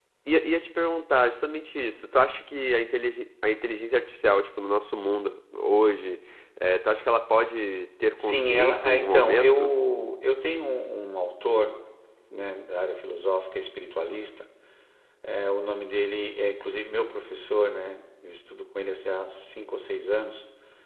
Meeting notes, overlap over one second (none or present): present